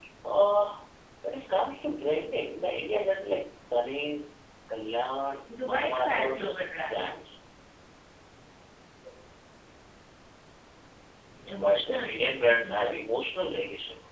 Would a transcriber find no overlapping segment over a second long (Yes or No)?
No